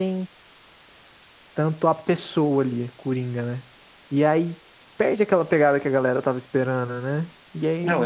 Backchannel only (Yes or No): Yes